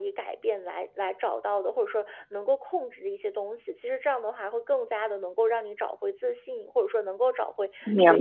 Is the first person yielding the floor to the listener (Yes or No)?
No